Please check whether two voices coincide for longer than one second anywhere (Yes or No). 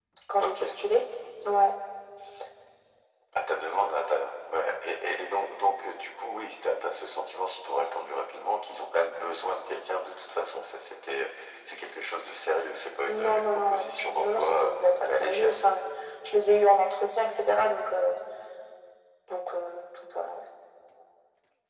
Yes